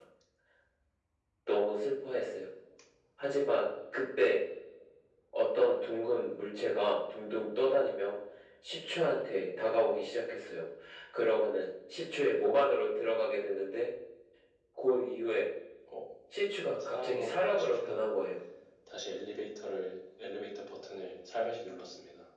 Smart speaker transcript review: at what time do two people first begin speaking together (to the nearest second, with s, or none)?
17 s